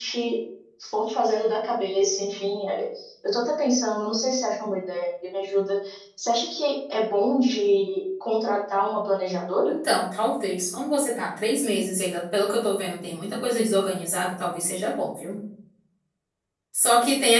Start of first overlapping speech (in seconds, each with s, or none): none